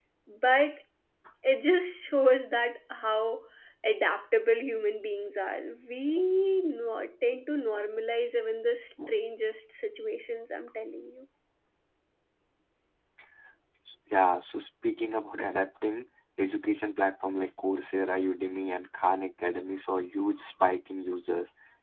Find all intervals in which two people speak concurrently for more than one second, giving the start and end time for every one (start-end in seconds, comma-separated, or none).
none